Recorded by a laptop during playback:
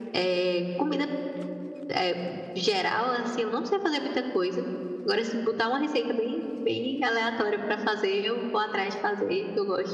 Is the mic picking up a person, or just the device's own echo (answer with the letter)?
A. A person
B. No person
B